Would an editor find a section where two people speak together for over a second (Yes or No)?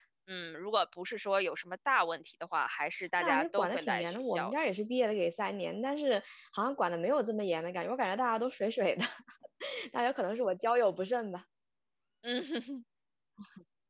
Yes